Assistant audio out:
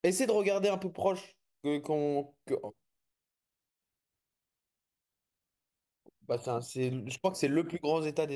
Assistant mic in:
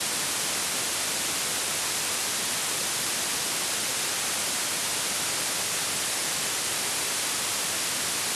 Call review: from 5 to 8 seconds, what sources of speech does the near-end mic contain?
neither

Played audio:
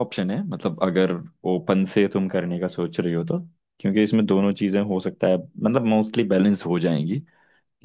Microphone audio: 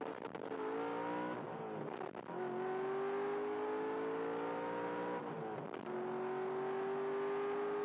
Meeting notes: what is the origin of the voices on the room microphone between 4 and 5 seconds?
neither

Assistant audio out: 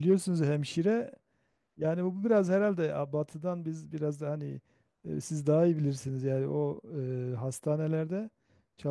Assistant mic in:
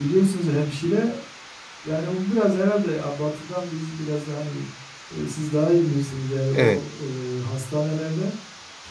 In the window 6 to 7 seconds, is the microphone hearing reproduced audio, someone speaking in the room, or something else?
both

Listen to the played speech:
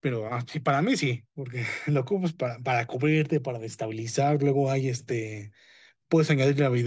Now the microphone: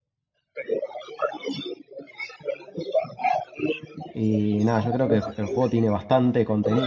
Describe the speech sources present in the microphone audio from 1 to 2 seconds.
echo only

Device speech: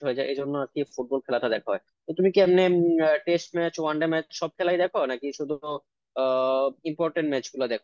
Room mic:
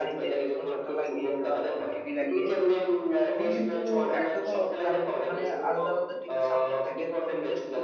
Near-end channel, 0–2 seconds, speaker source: both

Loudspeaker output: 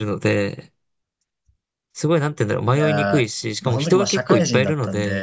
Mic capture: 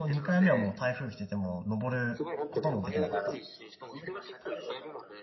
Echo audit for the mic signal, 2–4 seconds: both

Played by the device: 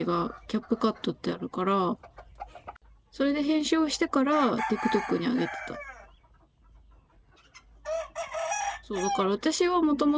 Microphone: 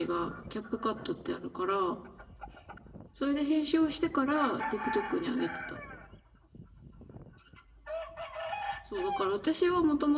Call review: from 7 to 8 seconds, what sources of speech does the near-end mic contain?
neither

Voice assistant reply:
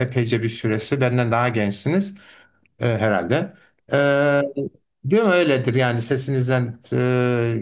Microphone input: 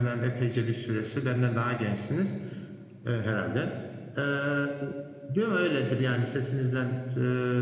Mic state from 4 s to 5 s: echo only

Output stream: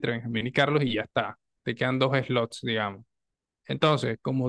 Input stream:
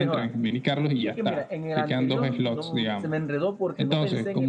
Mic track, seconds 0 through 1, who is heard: both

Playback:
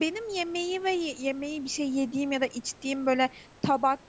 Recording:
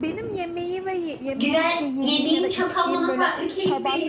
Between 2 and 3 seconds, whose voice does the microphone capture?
both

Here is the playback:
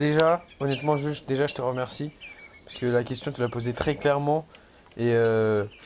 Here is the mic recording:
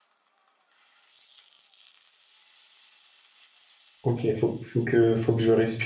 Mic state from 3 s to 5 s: user only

